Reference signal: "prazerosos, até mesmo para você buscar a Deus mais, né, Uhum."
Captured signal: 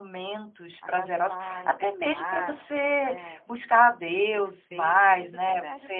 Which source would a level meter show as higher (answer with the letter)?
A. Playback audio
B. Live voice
A